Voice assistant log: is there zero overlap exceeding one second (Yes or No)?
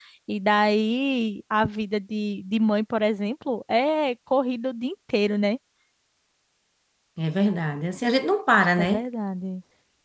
Yes